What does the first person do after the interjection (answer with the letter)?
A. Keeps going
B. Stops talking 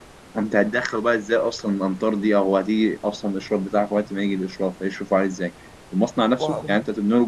A